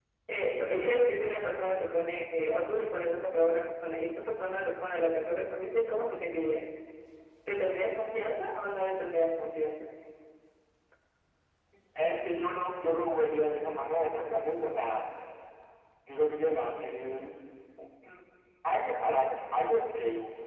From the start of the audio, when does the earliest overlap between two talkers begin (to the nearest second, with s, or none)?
none